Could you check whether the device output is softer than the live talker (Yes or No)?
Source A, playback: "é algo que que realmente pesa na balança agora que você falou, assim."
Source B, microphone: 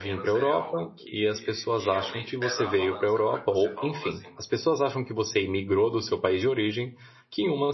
Yes